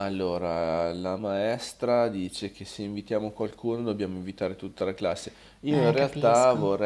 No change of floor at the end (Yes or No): Yes